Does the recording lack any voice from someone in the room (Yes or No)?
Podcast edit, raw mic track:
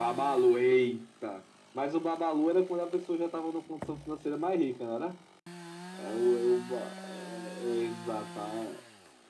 Yes